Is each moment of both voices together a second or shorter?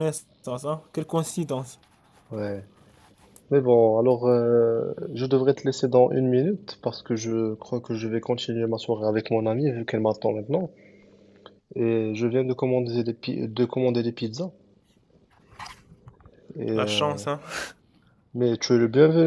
Yes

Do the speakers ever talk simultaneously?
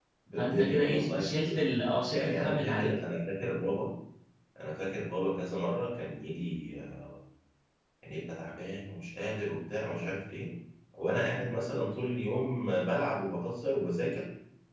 Yes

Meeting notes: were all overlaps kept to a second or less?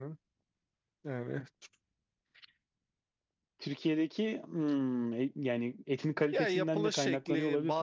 No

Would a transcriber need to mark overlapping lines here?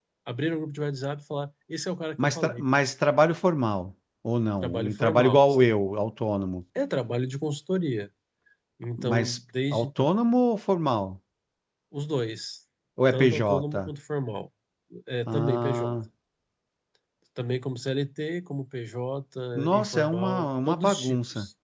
Yes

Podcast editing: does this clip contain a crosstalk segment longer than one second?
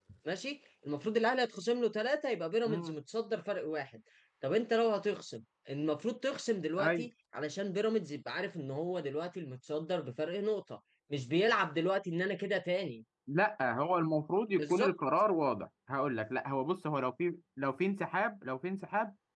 No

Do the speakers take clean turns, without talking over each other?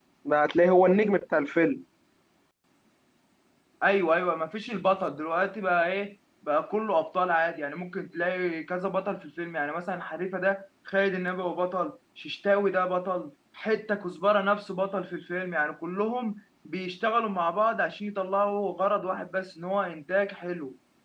Yes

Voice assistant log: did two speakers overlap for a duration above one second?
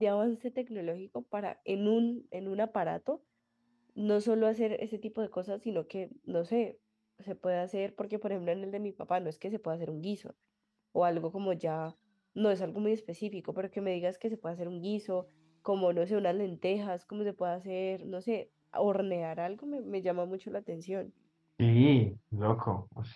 No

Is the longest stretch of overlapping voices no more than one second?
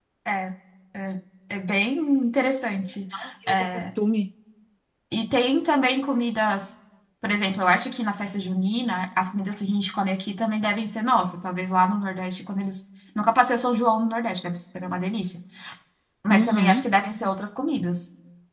Yes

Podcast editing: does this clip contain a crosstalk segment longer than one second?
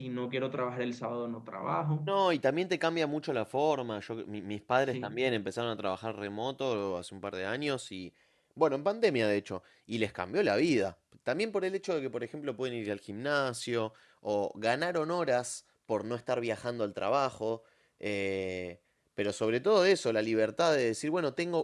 No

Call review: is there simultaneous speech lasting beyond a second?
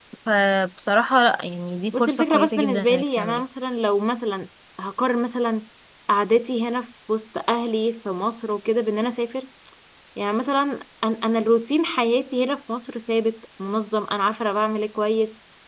Yes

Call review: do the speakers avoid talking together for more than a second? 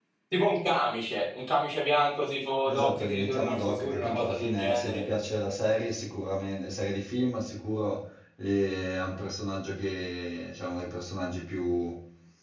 No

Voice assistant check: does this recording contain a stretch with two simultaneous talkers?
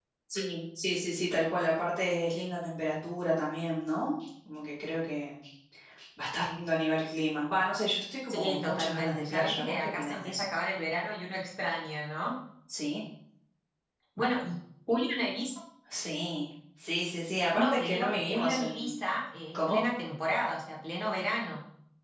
Yes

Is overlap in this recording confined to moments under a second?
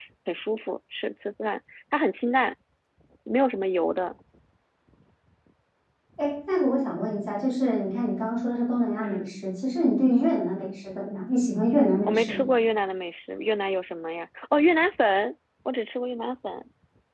Yes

